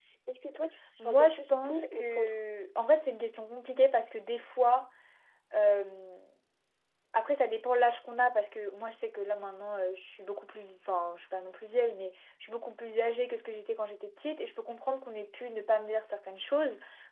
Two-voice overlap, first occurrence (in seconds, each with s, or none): 1.1 s